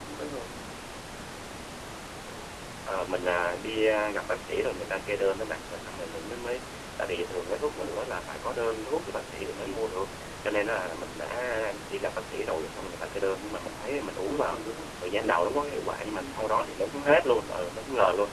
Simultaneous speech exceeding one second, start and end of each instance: none

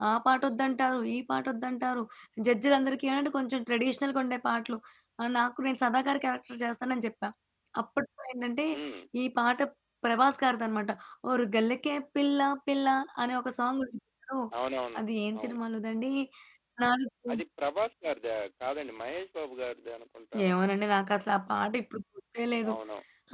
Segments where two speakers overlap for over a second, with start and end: none

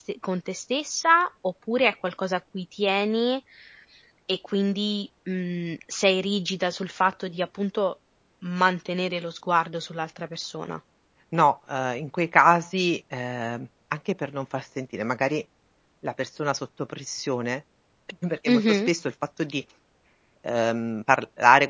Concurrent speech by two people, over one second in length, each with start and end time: none

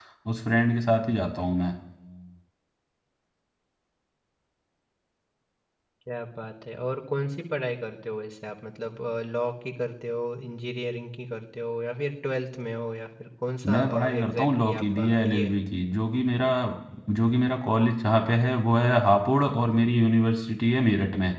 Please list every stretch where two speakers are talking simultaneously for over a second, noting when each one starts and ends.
13.7-15.6

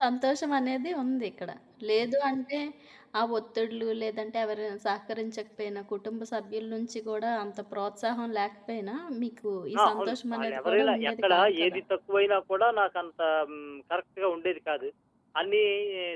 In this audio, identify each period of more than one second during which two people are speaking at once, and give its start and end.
9.8-11.8

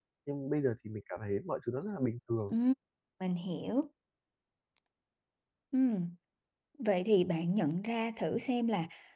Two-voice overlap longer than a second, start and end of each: none

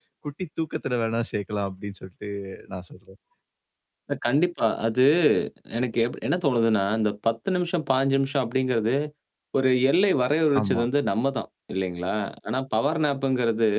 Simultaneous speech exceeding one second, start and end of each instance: none

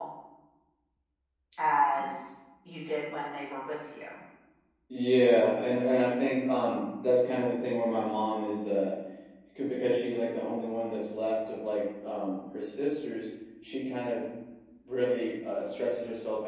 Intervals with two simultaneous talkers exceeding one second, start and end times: none

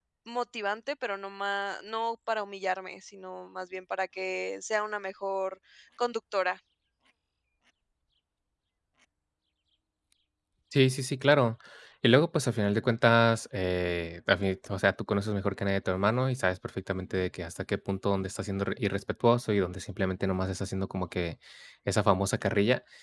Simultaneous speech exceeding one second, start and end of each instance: none

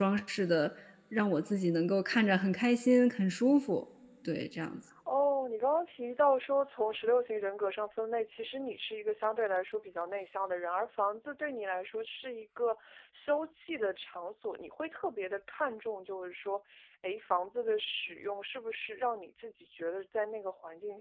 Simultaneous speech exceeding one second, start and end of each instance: none

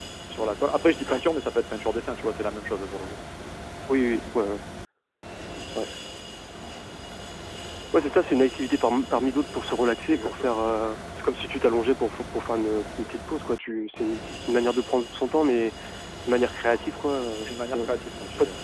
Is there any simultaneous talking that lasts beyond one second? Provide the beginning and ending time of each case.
none

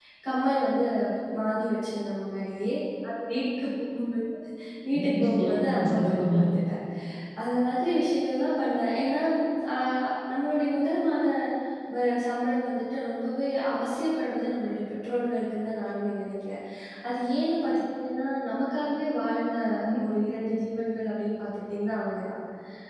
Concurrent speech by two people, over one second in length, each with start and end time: 5.0-6.3

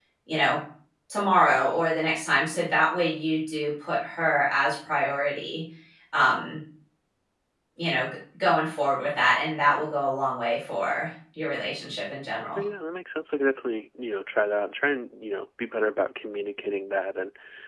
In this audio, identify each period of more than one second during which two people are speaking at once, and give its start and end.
none

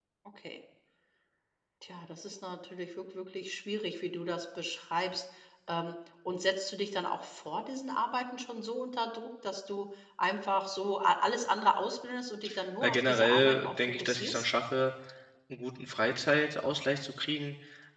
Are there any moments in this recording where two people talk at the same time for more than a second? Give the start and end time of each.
12.8-14.5

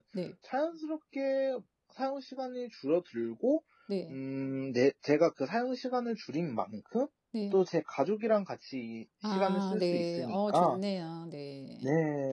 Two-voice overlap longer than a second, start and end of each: 9.2-10.8

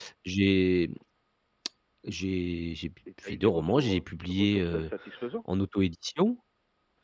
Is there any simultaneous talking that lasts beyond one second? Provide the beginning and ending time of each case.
3.2-4.9

